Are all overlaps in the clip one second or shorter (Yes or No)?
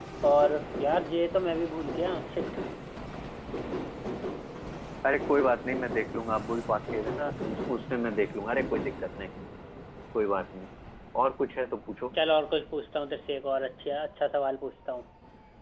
Yes